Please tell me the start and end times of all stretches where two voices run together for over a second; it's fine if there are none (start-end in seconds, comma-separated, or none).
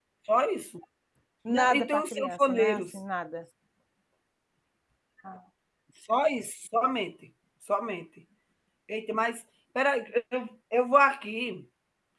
1.5-3.0